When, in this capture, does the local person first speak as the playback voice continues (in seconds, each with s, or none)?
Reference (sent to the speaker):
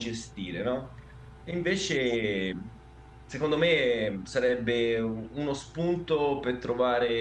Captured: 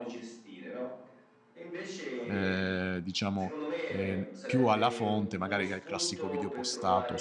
2.2 s